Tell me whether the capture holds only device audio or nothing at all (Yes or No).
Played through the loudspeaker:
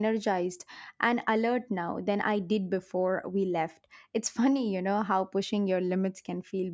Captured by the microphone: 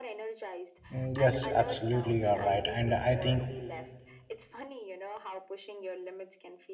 No